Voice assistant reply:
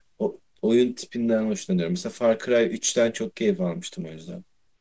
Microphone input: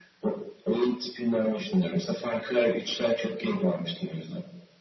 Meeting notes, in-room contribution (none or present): none